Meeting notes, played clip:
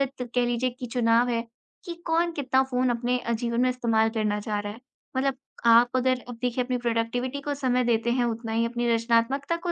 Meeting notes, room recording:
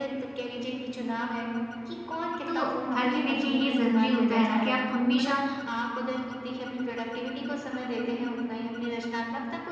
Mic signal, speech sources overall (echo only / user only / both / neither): both